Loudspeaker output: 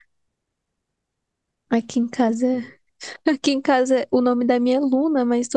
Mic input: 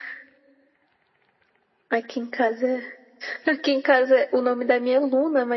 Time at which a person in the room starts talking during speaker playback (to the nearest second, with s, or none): none